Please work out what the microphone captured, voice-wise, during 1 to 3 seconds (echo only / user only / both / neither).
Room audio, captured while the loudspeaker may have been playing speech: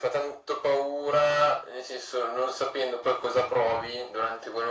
echo only